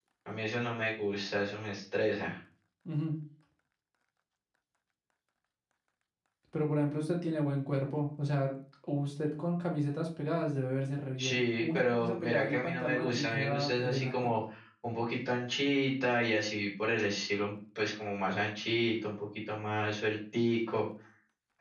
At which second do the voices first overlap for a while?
11.2 s

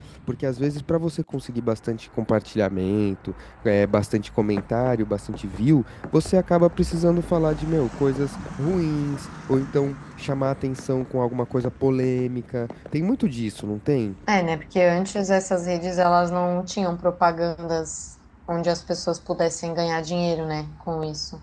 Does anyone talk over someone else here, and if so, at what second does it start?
none

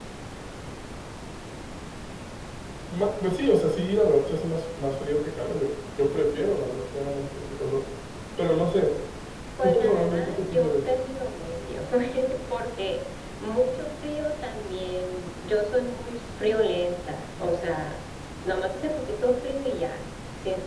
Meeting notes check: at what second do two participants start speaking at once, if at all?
9.6 s

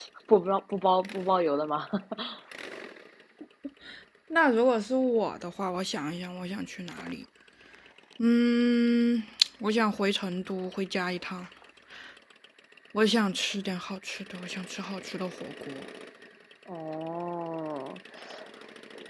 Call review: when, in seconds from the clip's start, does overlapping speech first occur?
none

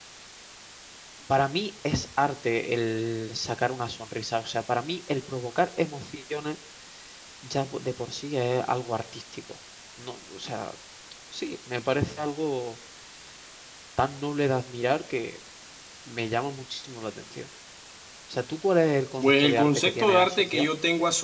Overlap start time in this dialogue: 19.2 s

